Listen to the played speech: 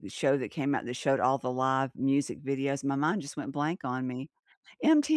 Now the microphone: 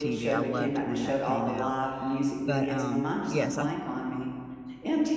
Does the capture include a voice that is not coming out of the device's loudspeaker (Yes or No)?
Yes